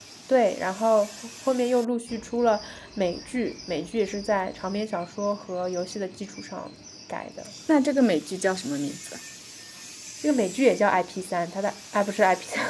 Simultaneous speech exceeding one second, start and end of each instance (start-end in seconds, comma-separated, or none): none